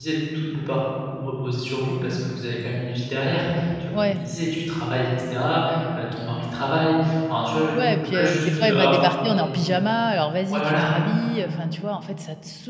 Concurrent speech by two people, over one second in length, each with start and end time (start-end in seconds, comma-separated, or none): 8.0-9.6